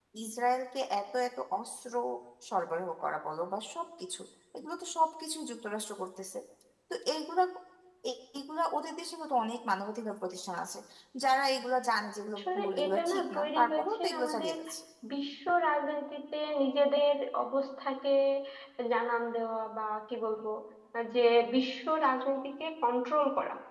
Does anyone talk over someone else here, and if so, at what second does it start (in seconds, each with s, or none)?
12.4 s